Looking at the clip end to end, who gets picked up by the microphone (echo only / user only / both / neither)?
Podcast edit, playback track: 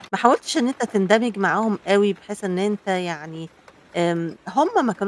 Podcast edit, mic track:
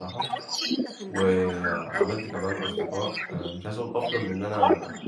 both